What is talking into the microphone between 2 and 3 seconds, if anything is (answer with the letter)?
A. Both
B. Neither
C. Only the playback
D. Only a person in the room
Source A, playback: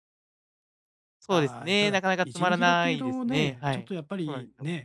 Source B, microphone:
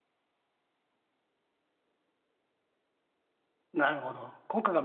B